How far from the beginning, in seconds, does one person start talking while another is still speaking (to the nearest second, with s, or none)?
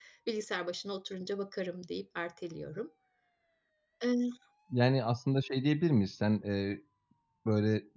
none